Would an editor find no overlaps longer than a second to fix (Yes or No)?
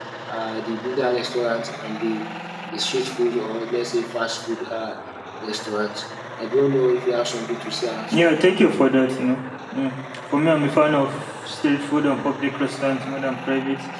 Yes